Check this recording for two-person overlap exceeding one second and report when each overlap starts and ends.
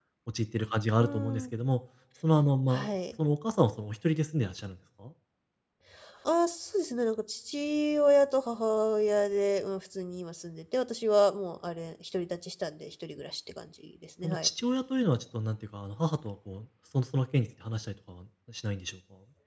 none

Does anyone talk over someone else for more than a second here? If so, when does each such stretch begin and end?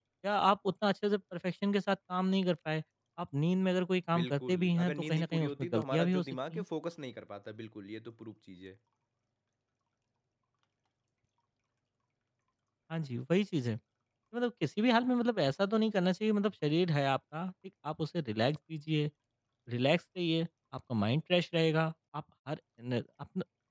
4.2-6.6

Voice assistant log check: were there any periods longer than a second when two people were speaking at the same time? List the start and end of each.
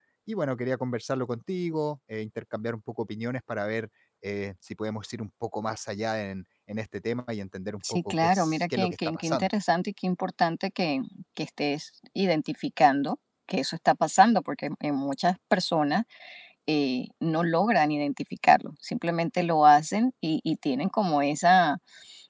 7.9-9.5

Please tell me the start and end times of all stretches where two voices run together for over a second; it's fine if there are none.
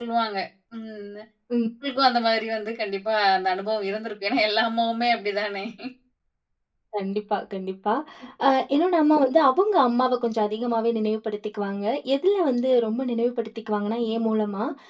none

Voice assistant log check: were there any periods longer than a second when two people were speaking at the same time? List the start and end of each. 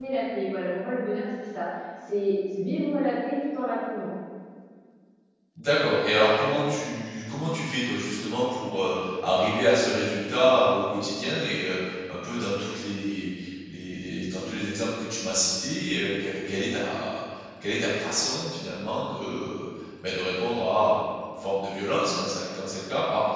none

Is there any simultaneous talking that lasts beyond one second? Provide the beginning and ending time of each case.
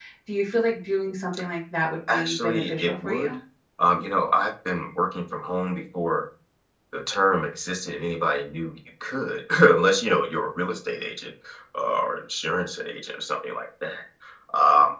2.1-3.3

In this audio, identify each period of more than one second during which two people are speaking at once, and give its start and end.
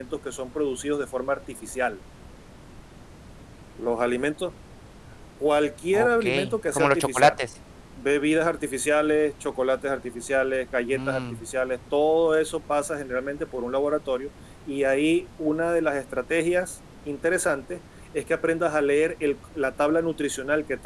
5.9-7.3

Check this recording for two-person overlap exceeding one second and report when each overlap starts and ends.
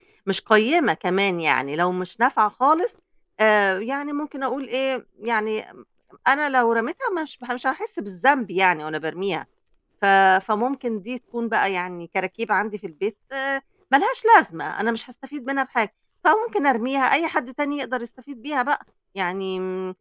none

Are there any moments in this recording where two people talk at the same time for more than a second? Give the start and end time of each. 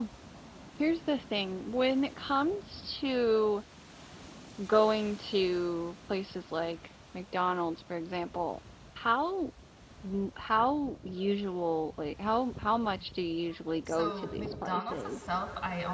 13.9-15.4

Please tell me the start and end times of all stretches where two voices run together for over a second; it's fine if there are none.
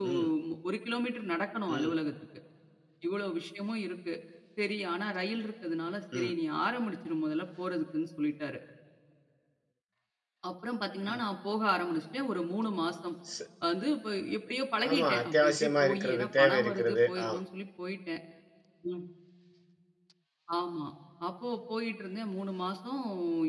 14.9-17.4

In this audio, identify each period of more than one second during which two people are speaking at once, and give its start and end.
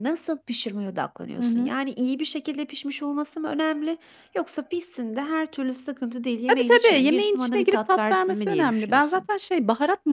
6.5-9.2

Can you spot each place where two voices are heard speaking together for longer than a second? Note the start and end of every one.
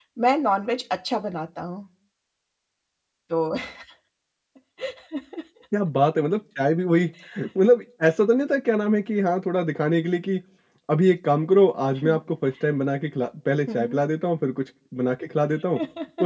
none

